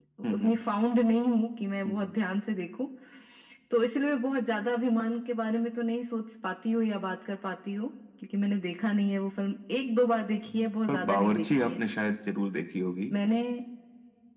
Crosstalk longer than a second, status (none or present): present